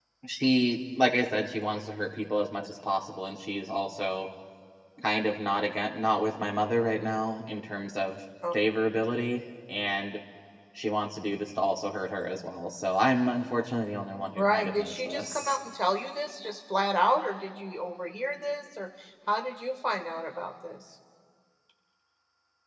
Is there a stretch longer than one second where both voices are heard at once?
Yes, from 14.4 s

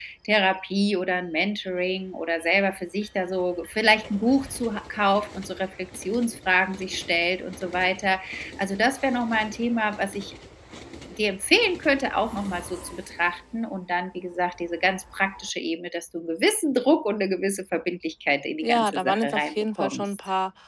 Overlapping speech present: Yes, from 18.6 s

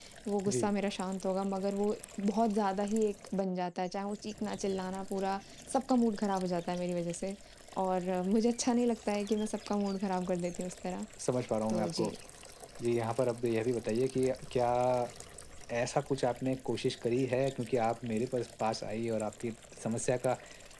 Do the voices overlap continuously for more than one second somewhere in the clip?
No

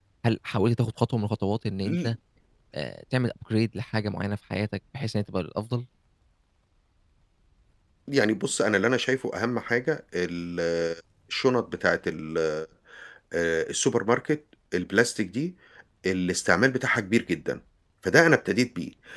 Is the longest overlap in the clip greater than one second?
No

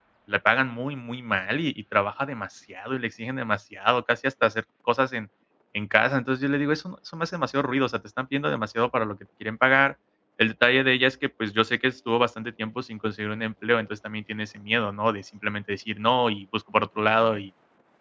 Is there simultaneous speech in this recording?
No

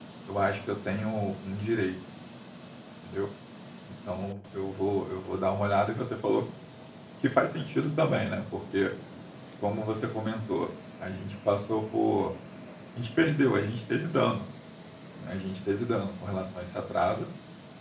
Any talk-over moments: No

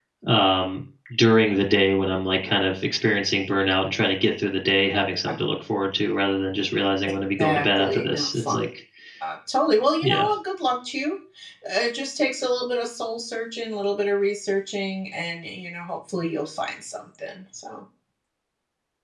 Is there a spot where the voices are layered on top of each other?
Yes, from 7.4 s

